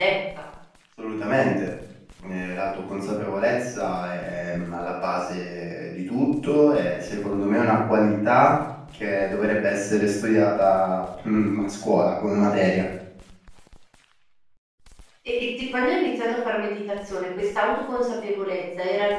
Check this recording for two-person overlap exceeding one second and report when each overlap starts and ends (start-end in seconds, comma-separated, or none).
none